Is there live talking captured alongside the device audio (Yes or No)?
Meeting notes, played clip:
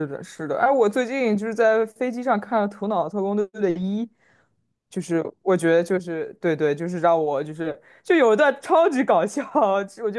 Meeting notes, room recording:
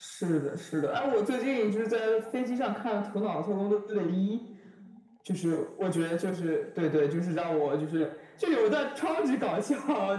No